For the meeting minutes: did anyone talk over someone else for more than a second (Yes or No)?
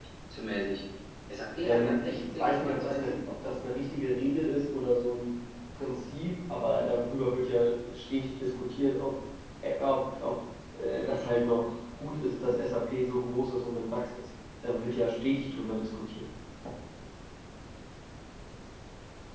Yes